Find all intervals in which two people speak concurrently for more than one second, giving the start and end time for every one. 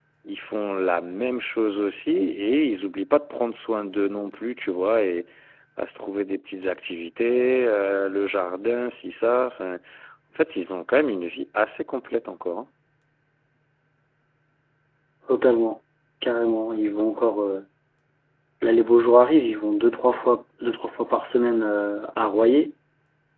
none

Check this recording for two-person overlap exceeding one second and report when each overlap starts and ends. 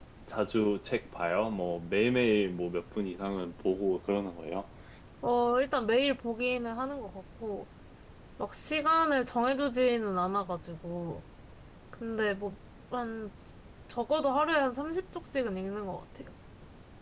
none

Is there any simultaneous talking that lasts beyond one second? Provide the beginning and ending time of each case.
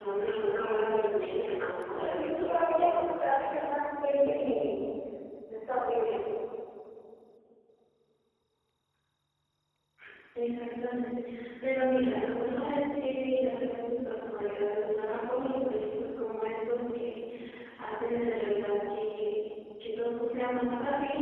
1.9-3.6

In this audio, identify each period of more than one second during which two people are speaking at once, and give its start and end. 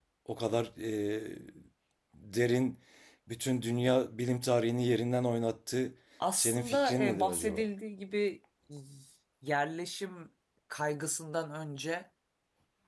6.3-7.6

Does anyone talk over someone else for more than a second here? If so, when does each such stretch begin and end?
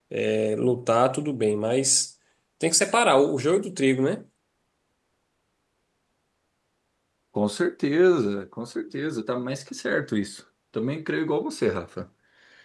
none

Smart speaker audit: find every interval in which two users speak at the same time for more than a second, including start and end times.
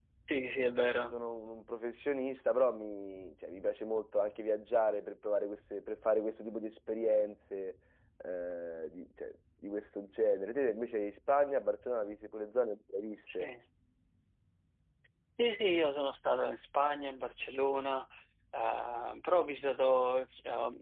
none

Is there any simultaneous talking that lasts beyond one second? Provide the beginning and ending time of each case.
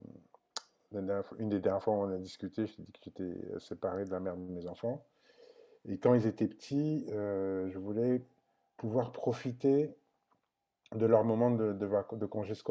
none

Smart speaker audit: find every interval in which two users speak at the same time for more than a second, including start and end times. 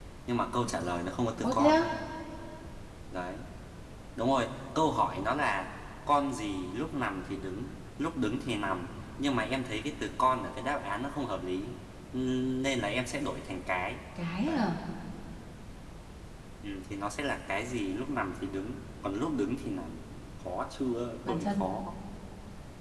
none

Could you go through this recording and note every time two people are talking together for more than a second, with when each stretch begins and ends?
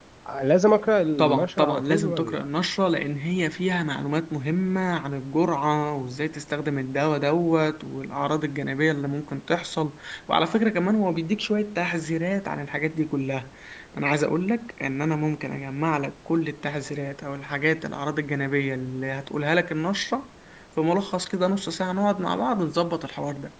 1.2-2.4

